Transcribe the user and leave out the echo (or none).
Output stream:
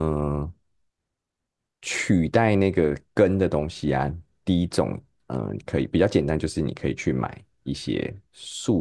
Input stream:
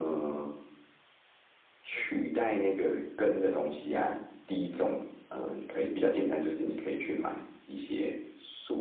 none